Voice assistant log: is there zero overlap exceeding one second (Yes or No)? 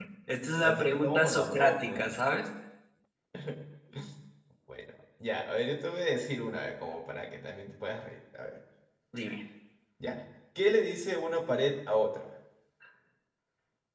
No